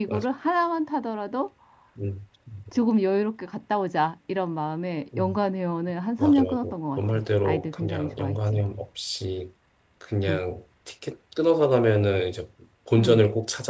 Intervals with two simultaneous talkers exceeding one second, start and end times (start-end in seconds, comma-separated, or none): 6.2-8.6